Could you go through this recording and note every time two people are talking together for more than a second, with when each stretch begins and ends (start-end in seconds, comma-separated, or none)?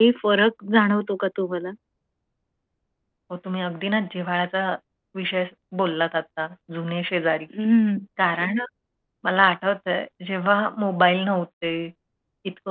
none